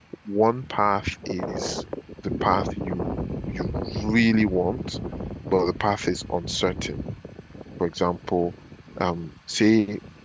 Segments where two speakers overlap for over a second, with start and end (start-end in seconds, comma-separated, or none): none